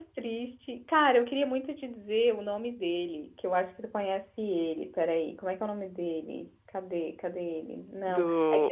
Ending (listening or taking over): listening